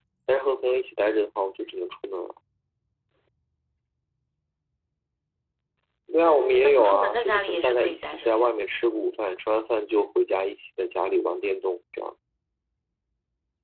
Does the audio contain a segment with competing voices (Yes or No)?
Yes